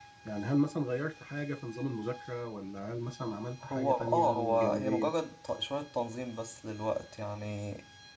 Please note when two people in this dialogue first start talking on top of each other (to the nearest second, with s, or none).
4 s